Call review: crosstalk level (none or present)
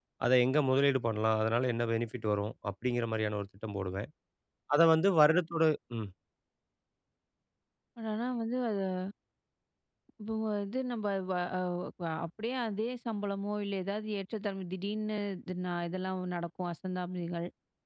none